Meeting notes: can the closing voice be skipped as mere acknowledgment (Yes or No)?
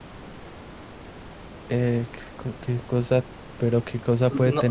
No